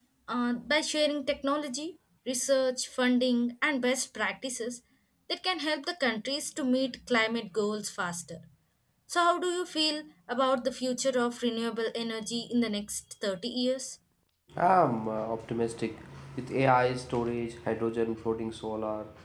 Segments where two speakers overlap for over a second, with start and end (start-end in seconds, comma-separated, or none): none